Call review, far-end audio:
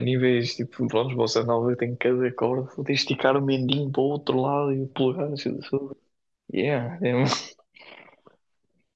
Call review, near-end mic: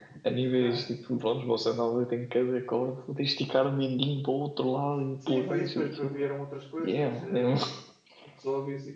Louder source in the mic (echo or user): echo